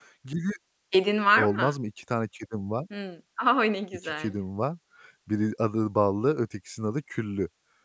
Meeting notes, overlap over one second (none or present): none